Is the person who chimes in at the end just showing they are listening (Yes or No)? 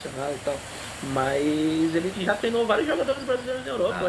Yes